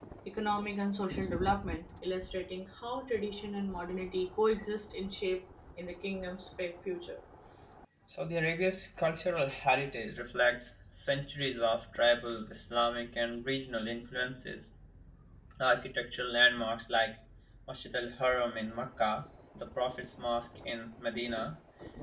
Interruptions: none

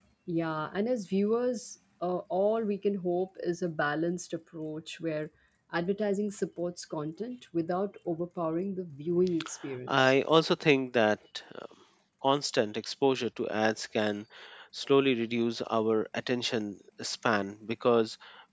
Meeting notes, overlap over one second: none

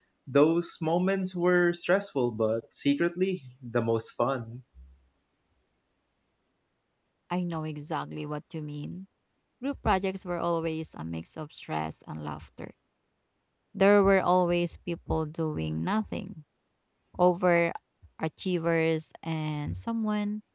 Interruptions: none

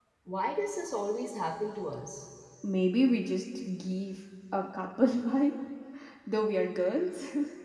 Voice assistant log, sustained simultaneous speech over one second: none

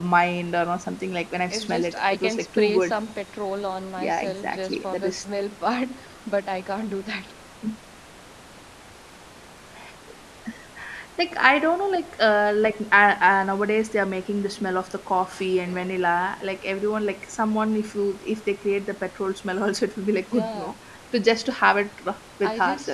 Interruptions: present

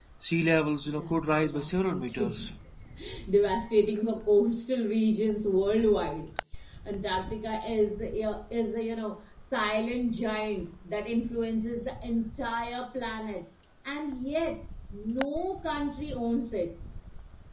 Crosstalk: present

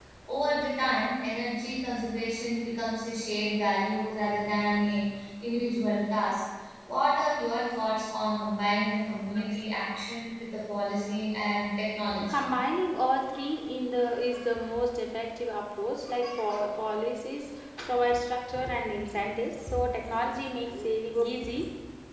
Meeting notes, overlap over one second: none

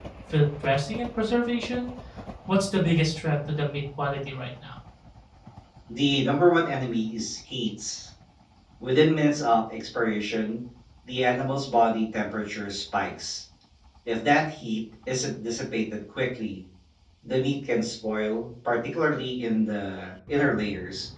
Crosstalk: none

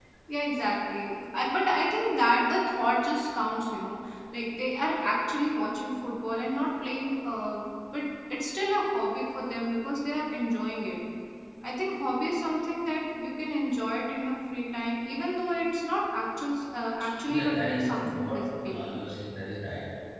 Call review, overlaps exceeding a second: present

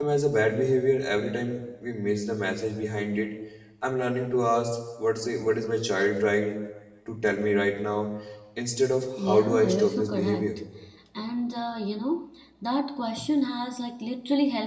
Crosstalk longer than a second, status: present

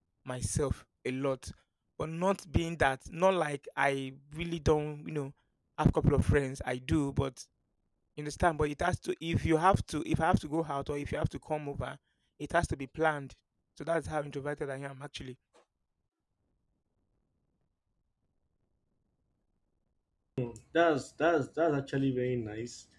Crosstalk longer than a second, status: none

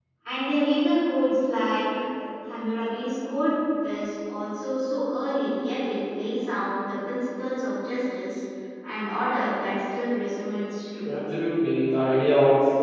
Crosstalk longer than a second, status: none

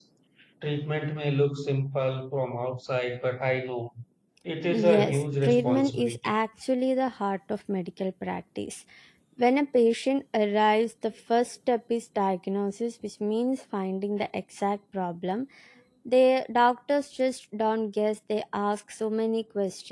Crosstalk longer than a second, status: present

